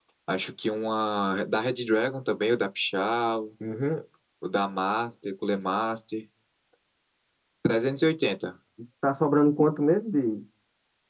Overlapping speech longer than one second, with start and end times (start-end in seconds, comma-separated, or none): none